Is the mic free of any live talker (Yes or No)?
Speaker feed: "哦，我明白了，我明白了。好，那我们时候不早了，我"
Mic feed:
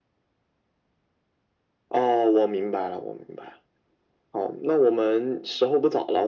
Yes